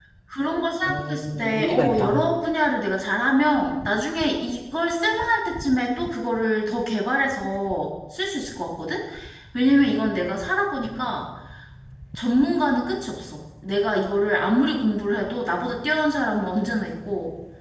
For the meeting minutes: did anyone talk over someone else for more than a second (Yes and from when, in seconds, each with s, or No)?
Yes, from 0.9 s